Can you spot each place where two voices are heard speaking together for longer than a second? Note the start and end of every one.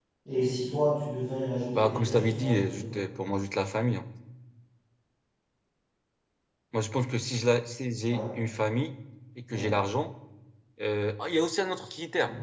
1.7-3.0

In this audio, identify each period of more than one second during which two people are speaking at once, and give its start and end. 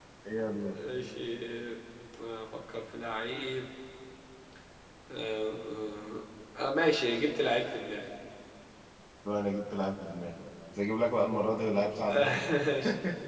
none

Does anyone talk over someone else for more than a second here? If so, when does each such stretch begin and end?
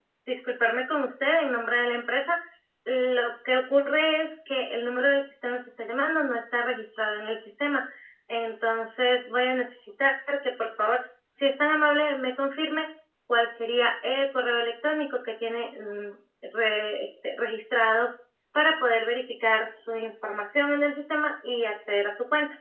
none

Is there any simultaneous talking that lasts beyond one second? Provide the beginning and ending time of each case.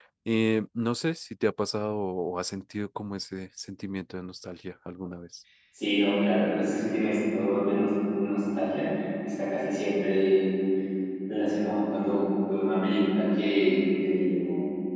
none

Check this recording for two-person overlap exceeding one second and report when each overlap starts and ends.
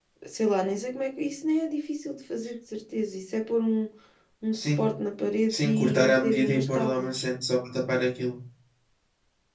5.5-7.2

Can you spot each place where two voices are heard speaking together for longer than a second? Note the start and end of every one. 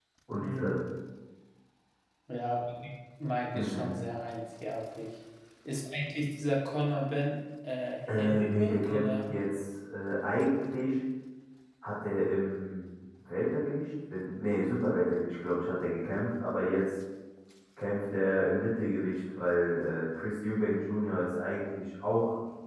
8.1-9.3

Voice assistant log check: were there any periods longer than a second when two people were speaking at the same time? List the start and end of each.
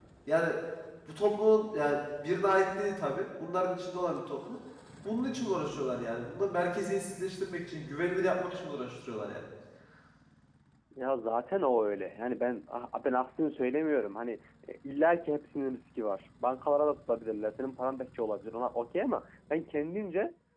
none

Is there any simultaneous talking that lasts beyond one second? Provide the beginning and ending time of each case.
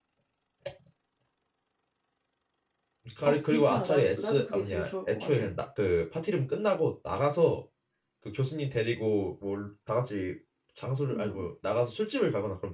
3.2-5.4

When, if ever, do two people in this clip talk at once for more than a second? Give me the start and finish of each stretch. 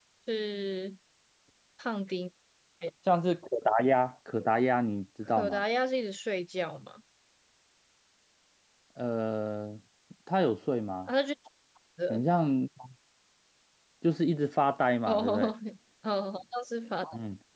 none

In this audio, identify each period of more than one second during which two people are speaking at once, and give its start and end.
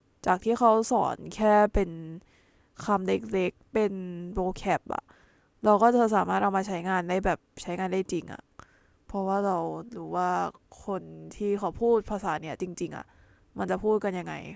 none

